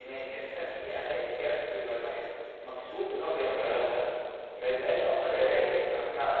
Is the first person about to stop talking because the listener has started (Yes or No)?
No